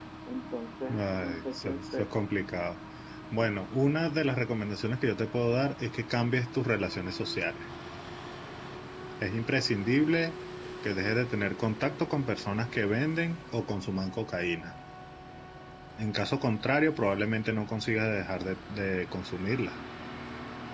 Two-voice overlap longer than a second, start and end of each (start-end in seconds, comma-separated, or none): 0.9-2.1